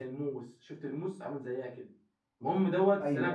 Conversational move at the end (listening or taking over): listening